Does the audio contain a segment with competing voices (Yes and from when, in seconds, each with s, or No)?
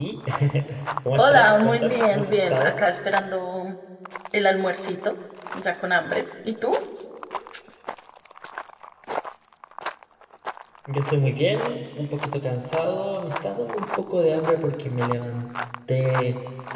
Yes, from 1.1 s